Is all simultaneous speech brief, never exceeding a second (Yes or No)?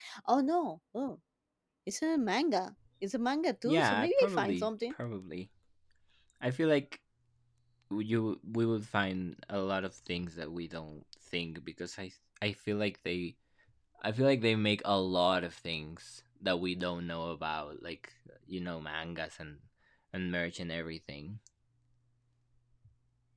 No